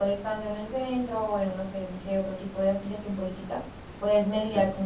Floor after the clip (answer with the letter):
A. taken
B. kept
B